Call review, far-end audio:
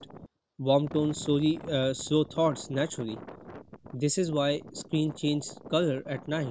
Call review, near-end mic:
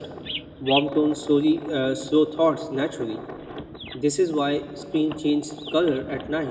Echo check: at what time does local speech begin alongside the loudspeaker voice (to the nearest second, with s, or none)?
none